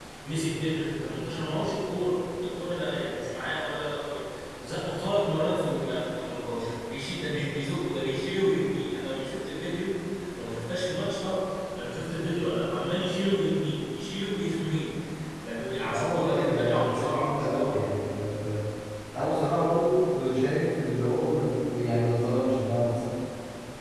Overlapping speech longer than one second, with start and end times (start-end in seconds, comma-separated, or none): 15.9-17.7